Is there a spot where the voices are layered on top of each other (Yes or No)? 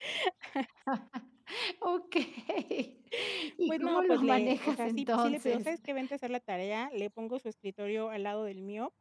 Yes